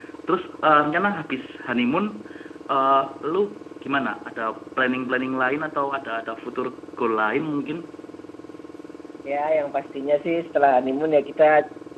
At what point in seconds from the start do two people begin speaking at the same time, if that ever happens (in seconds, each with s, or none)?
none